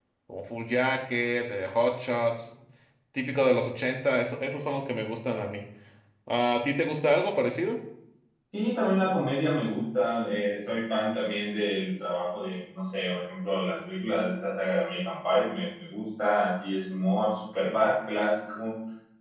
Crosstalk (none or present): none